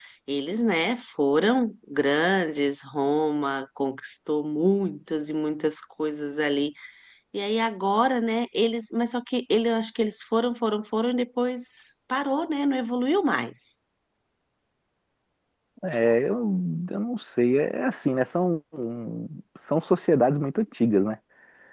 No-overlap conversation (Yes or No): Yes